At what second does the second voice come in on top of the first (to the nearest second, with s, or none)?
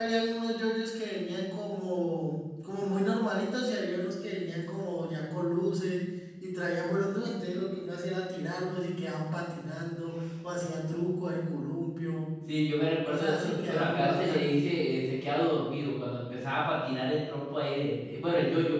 13 s